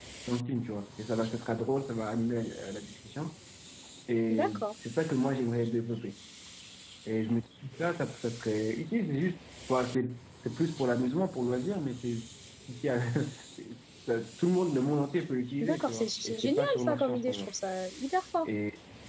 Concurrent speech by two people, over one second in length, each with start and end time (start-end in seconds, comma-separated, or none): 15.6-17.5